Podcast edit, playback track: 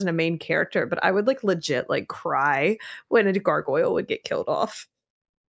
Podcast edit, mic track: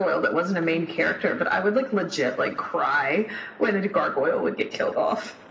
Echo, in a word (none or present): present